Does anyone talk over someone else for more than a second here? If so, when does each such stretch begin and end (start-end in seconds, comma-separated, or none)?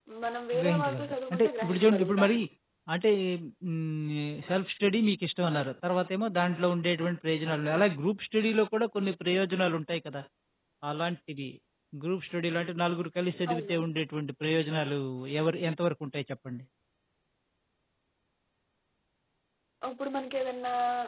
0.6-2.4